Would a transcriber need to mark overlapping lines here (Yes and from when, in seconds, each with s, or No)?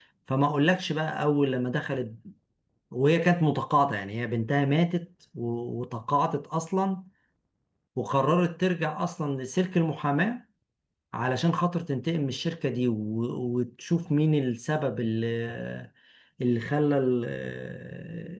No